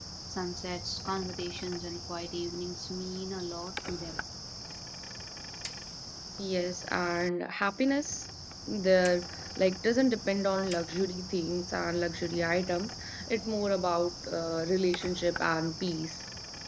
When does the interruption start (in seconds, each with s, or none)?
none